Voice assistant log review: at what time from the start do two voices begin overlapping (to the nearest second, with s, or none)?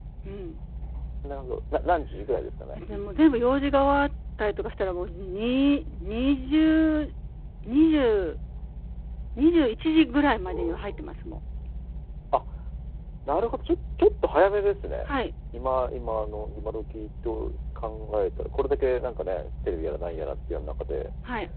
none